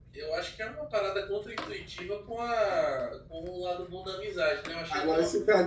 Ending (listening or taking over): taking over